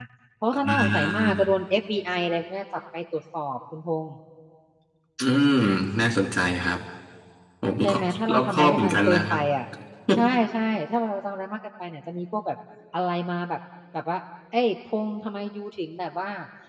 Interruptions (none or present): present